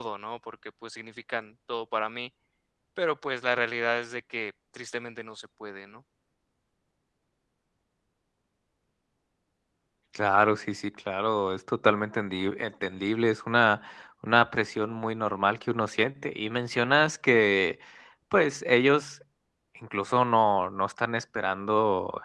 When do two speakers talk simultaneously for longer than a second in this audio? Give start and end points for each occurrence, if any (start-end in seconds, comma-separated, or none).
none